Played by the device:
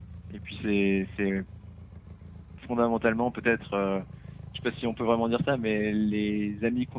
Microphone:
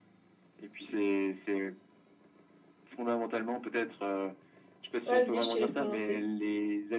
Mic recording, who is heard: both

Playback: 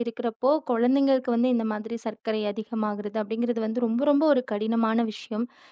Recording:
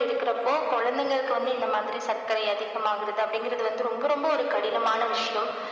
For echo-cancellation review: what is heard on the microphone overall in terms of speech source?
echo only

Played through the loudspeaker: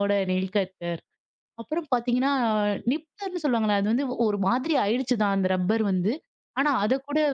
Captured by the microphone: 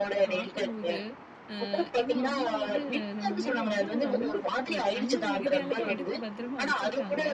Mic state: both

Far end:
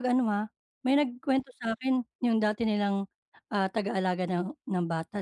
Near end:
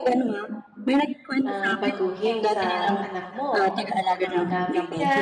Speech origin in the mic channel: both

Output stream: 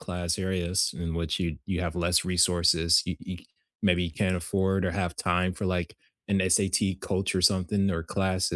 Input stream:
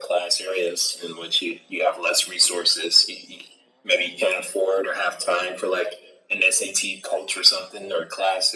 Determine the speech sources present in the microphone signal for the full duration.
echo only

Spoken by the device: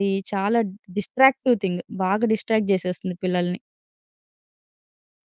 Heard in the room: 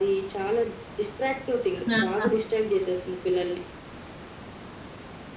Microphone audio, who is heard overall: both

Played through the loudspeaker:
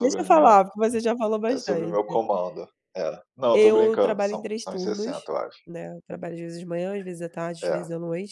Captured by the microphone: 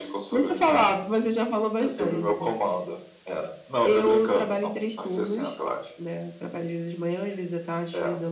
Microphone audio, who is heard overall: echo only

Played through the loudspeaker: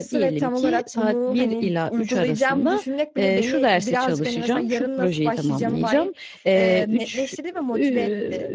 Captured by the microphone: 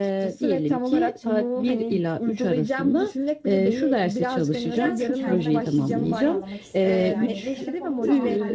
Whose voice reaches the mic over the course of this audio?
both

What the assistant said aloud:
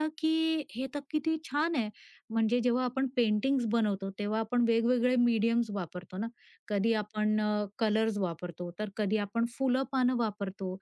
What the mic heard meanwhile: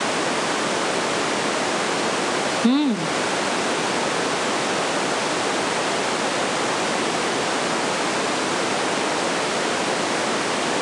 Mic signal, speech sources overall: user only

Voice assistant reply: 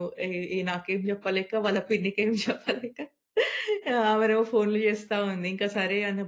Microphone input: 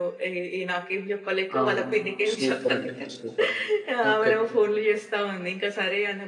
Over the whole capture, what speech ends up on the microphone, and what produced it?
both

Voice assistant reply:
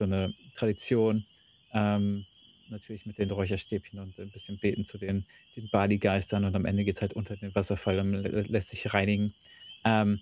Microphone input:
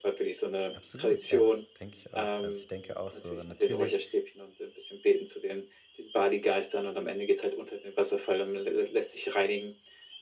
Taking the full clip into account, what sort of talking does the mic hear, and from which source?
both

